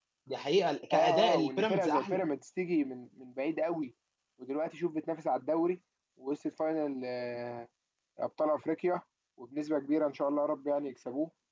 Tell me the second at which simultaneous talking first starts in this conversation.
1 s

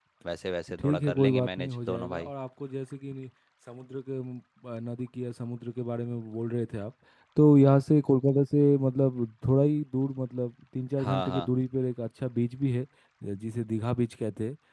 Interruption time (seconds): 1 s

